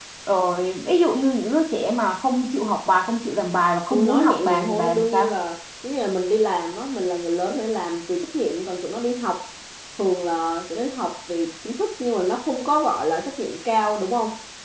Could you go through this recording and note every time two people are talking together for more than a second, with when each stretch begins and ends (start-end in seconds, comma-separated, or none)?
3.9-5.3